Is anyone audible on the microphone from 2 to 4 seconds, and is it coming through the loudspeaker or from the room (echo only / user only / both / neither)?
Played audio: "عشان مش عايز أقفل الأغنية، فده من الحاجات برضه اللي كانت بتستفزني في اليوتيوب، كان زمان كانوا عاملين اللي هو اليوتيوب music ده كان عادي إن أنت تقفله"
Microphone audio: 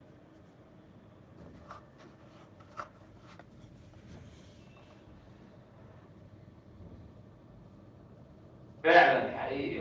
neither